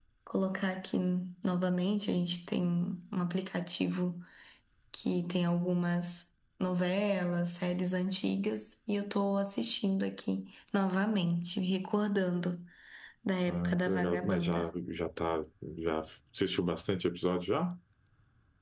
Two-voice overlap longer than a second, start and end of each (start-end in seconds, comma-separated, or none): 13.5-14.7